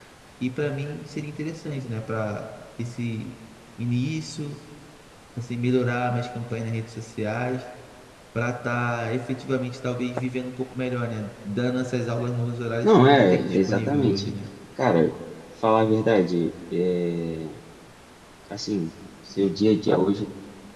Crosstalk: present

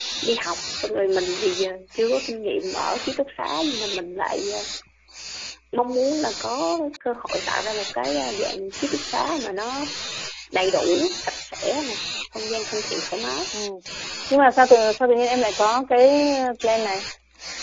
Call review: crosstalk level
none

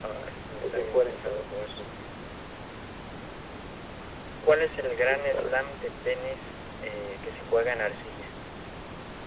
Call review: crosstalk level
present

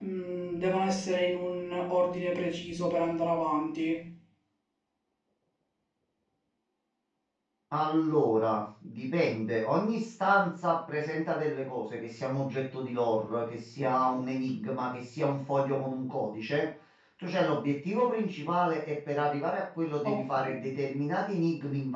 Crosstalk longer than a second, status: none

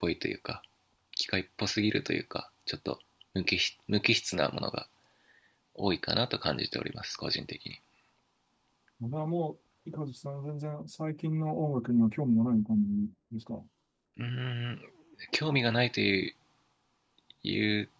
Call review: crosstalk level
none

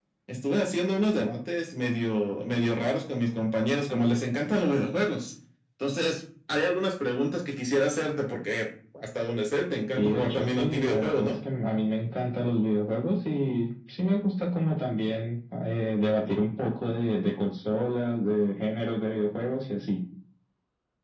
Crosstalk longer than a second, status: present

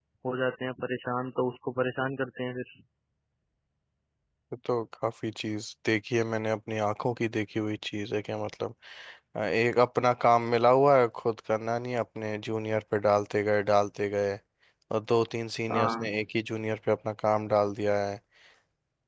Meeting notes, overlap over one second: none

